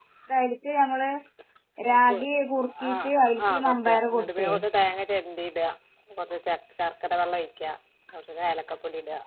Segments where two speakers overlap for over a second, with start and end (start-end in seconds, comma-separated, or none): 2.9-4.5